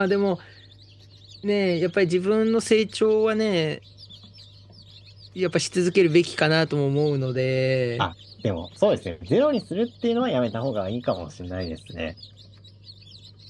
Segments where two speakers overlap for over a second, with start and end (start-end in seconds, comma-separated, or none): none